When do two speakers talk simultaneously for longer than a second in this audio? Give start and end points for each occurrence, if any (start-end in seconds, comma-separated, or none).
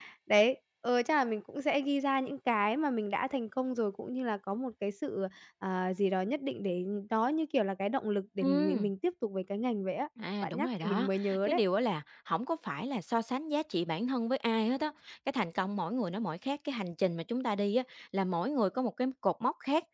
10.4-11.6